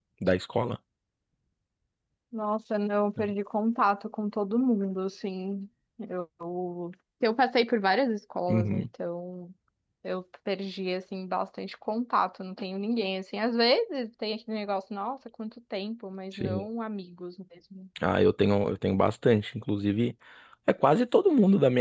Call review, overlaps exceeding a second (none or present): none